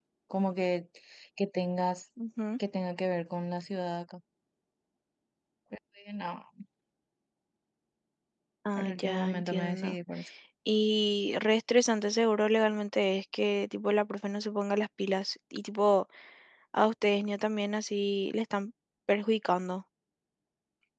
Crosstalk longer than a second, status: present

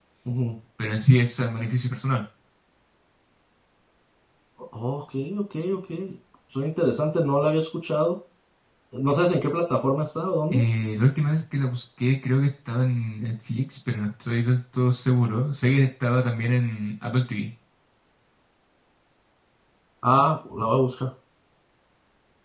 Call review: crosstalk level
none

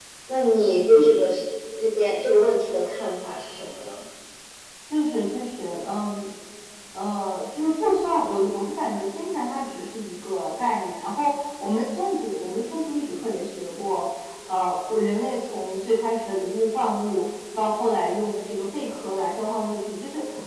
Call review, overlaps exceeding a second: none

